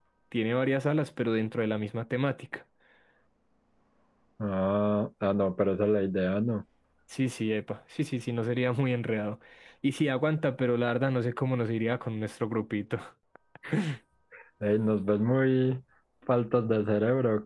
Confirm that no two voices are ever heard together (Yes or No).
Yes